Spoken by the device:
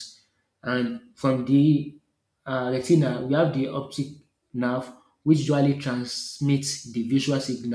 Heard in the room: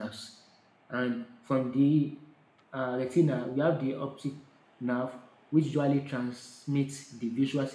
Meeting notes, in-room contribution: none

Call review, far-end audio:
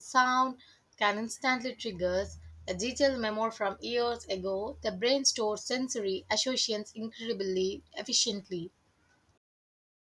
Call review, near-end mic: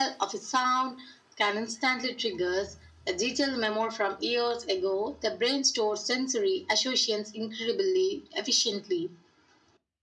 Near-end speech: none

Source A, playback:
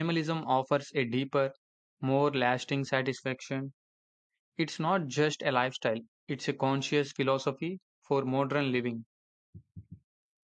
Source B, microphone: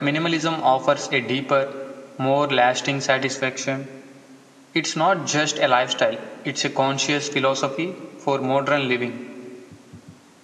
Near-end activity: none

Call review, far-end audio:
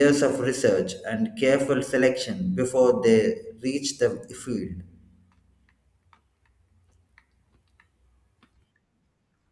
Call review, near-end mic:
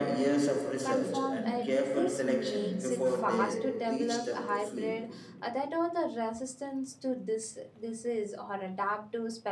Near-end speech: present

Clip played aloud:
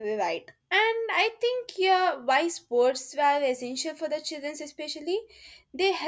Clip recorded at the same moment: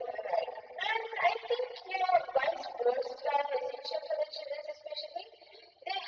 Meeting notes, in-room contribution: none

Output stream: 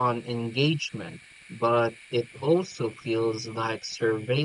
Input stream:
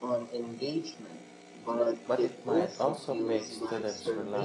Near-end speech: present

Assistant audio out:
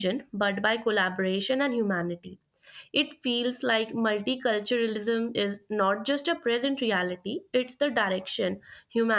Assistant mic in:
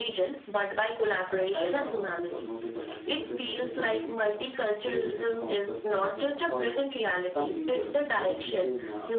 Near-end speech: present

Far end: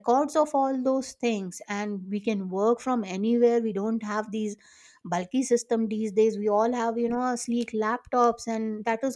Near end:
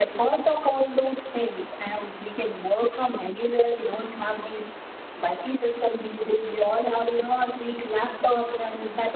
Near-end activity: none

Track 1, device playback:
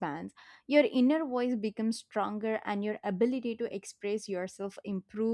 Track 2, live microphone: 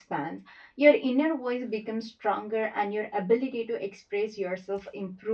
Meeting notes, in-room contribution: none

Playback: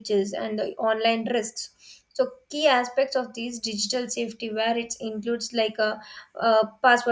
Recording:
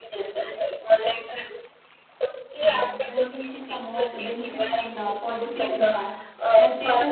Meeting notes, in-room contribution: present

